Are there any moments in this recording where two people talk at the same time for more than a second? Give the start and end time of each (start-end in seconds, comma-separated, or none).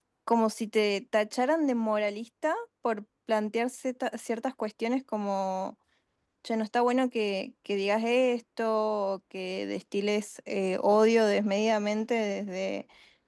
none